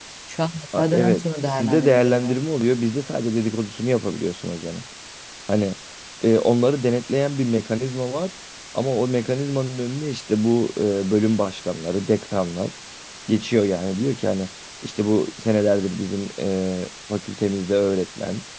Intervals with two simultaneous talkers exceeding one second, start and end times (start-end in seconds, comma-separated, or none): 0.8-2.4